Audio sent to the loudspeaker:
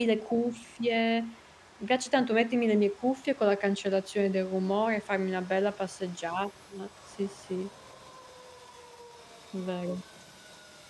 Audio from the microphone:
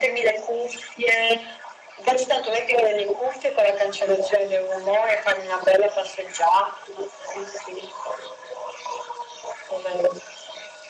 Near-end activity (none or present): none